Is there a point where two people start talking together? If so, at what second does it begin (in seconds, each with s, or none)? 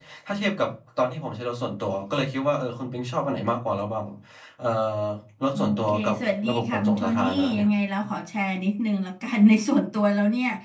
5.5 s